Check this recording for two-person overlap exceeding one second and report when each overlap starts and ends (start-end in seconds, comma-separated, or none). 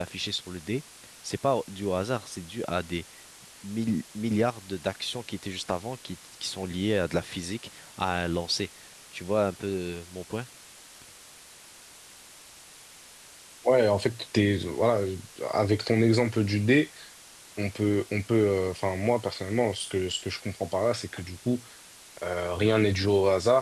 none